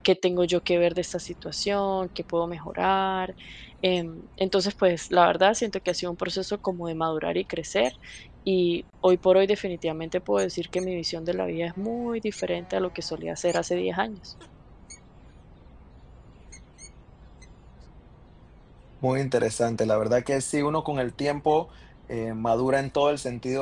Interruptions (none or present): none